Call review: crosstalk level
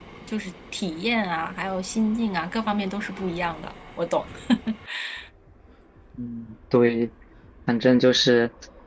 none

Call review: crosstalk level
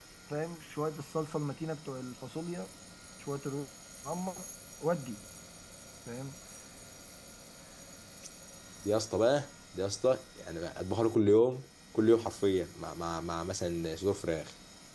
none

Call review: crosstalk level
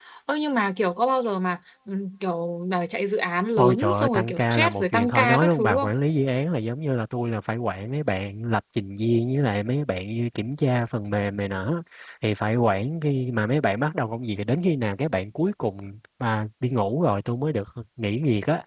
present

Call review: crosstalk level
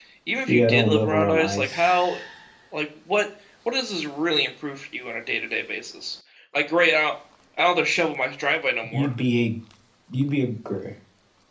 present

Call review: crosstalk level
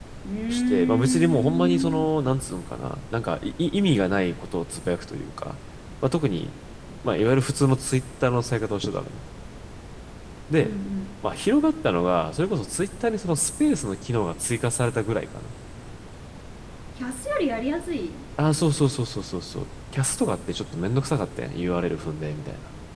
present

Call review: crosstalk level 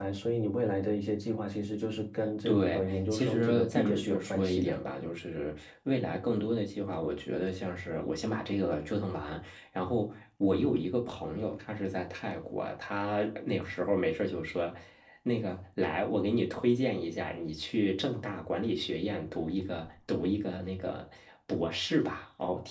present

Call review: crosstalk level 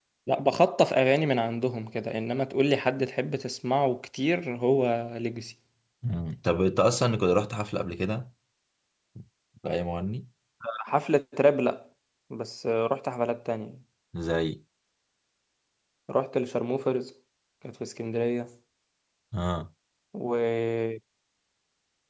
none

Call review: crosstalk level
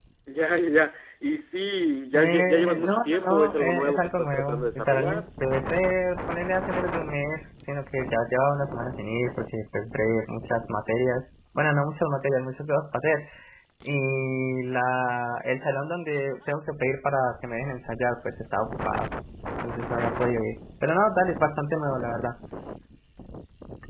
present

